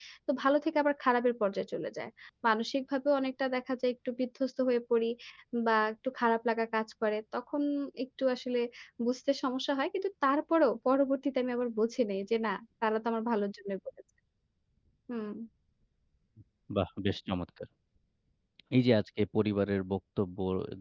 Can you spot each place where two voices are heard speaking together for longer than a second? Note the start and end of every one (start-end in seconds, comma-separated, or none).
none